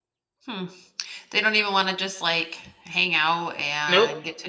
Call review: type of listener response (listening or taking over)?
taking over